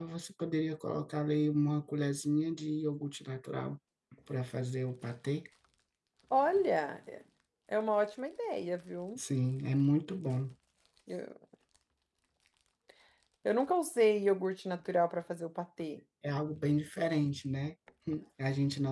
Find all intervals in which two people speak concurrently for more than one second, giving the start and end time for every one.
none

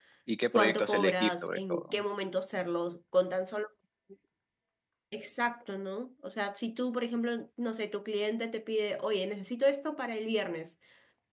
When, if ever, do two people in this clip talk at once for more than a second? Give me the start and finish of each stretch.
0.5-2.0

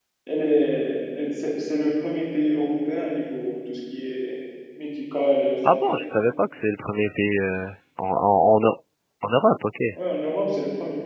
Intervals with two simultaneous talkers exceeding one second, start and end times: none

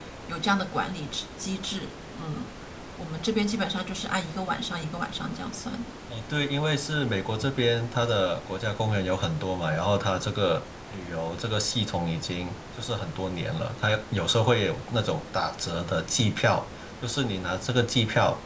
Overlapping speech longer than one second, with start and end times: none

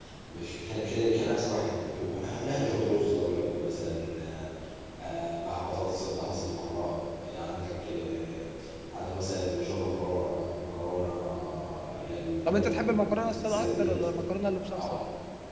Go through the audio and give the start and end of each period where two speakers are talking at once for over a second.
12.5-14.0

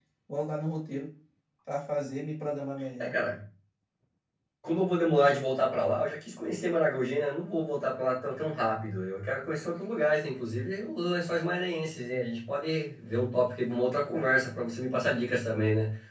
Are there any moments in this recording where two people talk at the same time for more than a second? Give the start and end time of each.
none

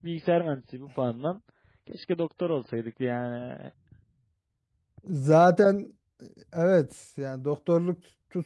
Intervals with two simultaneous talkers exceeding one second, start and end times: none

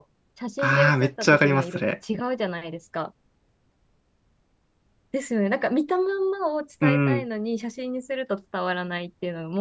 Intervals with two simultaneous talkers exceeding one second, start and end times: 0.6-1.8

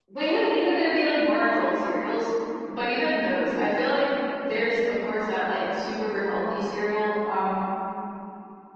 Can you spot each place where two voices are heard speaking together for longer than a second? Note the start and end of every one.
none

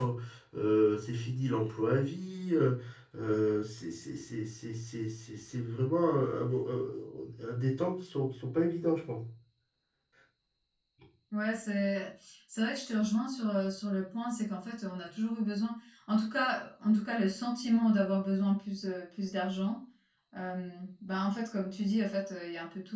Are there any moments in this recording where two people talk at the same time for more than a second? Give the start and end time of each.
none

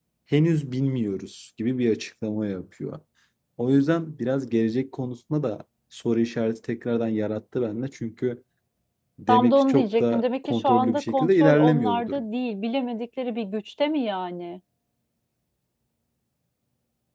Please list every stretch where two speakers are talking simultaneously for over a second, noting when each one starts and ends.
9.3-12.2

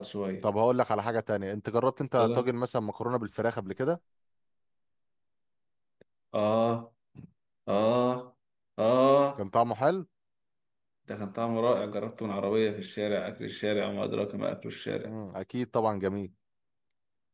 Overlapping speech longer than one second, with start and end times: none

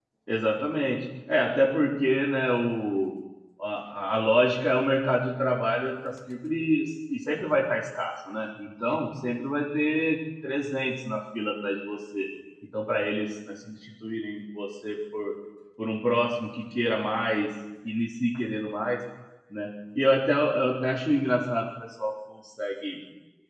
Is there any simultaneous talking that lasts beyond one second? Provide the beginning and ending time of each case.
none

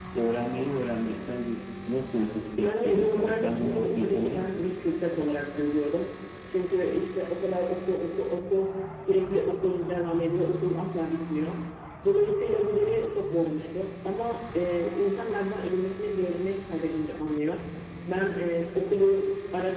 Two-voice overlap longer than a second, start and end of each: 2.6-4.7

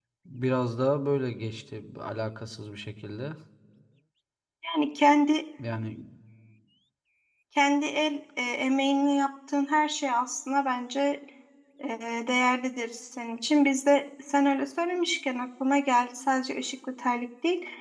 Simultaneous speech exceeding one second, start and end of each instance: none

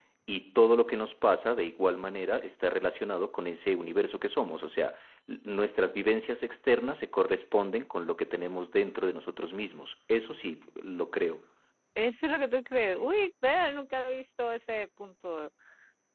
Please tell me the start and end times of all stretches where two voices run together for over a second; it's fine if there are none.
none

